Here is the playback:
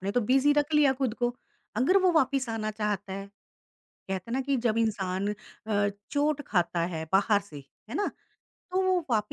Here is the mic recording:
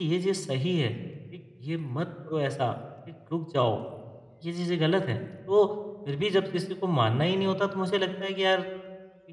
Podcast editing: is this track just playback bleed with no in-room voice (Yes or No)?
No